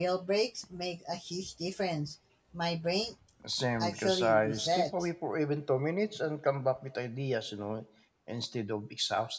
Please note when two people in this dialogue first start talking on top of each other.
3.8 s

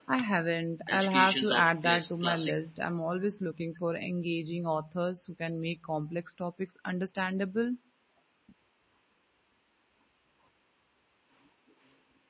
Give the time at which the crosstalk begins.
0.9 s

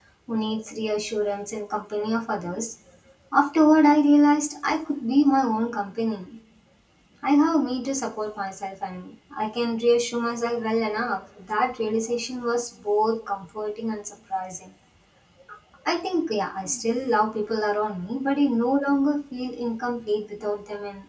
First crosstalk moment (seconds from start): none

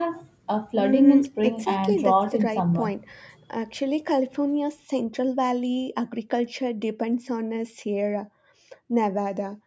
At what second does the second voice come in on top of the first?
0.8 s

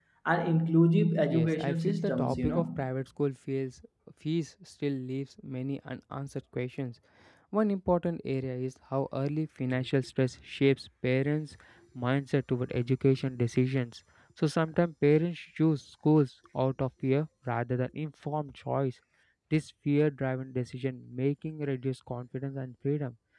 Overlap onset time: 1.3 s

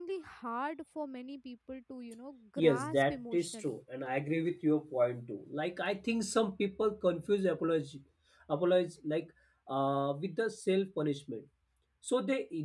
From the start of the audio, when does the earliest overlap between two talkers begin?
2.6 s

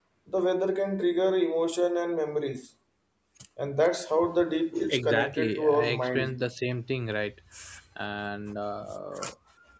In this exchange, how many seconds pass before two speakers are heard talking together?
4.9 s

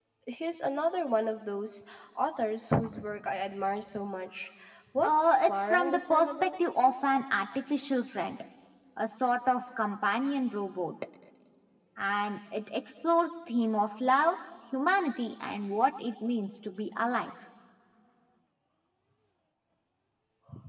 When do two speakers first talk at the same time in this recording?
5.0 s

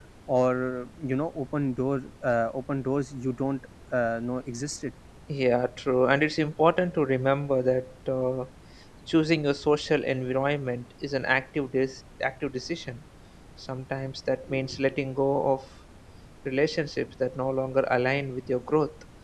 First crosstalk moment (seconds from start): none

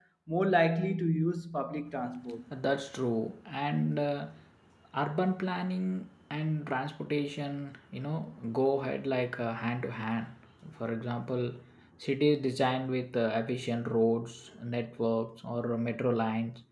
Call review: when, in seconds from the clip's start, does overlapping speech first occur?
none

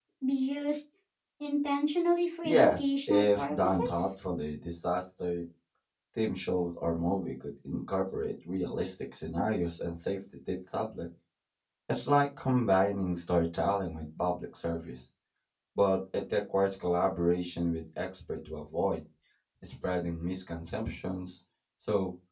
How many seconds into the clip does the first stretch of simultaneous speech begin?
2.4 s

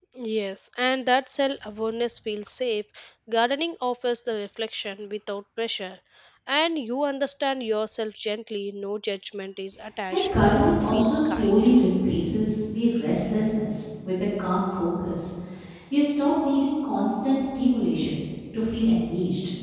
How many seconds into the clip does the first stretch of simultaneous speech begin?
10.1 s

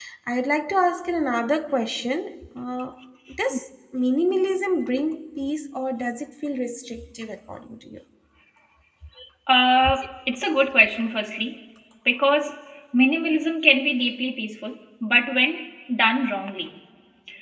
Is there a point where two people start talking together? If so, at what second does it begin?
none

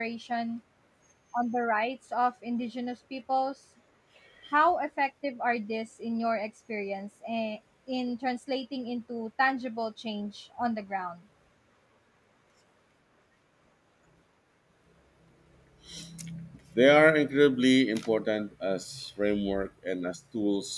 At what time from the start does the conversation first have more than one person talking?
none

